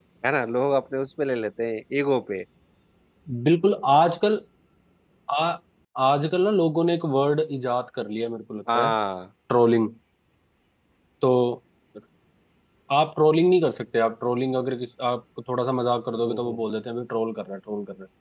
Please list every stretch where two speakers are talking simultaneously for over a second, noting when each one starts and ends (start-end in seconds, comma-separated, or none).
none